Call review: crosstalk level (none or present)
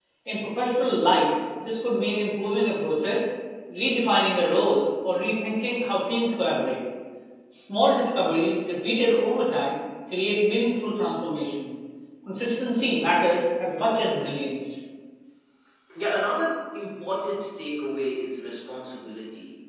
none